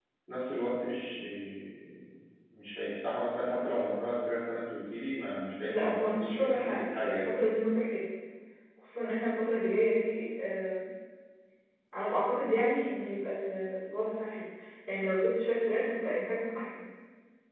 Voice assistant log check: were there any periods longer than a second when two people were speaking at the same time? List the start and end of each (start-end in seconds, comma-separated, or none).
5.7-7.3